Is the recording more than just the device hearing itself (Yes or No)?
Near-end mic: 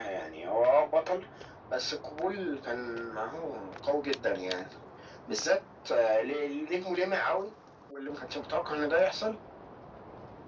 No